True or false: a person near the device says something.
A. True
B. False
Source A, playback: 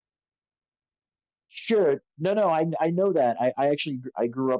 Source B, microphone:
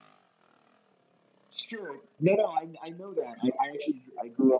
B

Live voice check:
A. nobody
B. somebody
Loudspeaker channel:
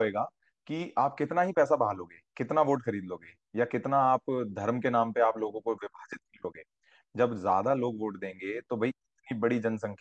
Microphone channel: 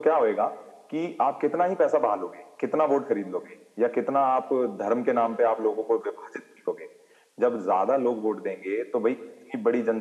A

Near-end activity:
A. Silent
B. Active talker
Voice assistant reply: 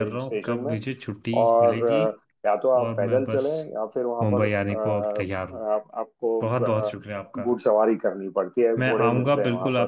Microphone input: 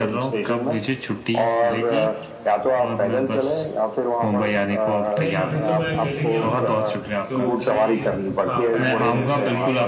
B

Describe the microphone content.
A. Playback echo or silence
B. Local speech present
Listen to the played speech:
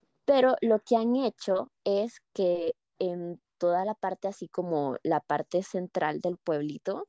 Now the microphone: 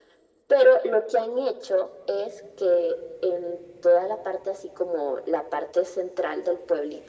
A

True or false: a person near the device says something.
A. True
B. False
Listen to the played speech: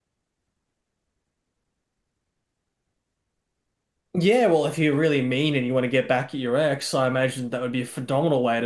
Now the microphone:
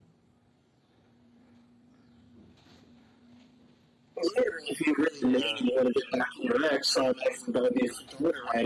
A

